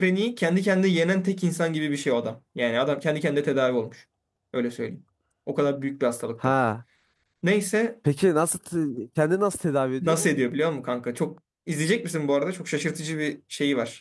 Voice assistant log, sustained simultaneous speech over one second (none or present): none